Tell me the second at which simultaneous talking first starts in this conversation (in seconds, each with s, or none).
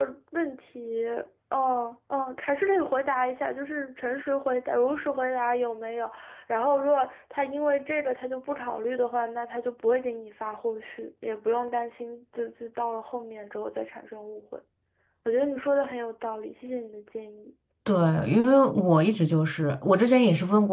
none